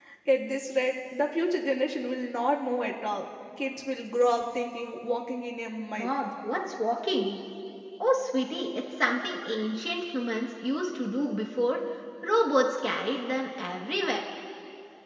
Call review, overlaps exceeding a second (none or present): none